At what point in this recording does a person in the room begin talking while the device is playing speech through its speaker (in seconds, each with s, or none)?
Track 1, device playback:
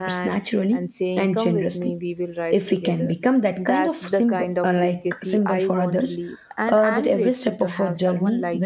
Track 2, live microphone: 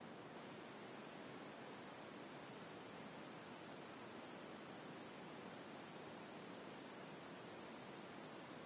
none